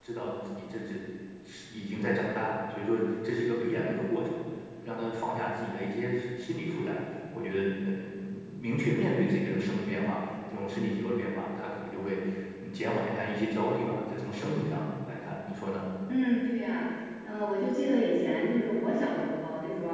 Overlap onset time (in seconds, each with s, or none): none